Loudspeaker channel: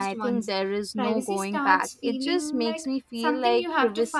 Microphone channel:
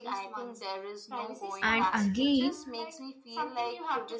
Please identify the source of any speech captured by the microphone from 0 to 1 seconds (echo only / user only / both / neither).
echo only